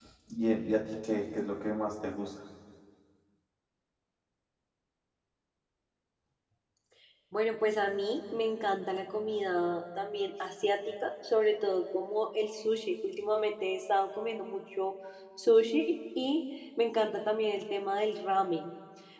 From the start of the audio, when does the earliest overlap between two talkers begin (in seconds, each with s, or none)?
none